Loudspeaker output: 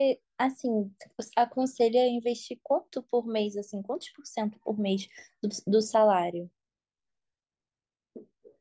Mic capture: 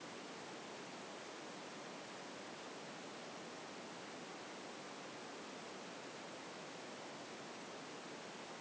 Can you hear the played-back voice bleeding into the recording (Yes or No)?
No